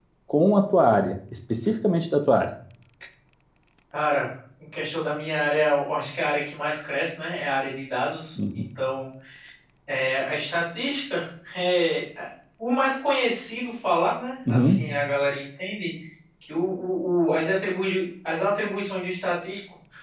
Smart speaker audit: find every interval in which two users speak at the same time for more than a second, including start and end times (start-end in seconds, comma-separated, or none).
none